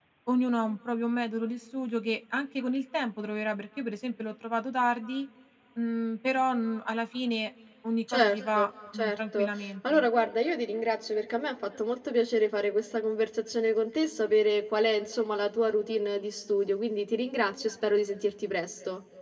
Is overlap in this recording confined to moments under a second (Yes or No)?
No